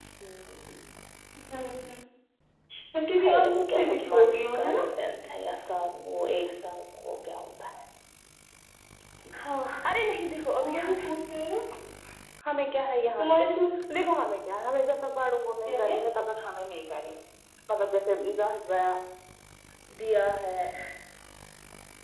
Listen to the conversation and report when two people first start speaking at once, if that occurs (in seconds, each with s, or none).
3.2 s